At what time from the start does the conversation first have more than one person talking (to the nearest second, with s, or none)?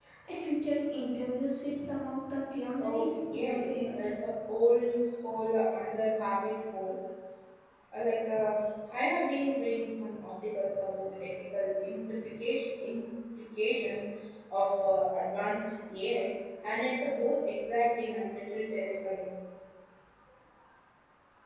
3 s